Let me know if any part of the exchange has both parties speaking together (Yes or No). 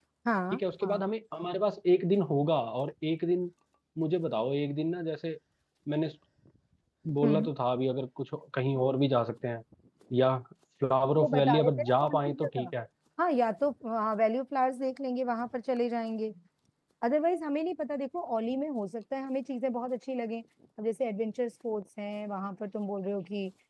Yes